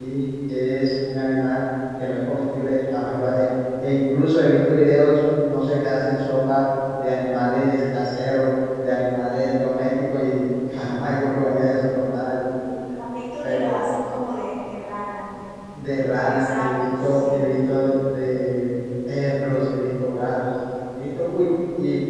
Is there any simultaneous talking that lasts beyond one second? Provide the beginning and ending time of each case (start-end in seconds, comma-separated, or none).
16.2-17.5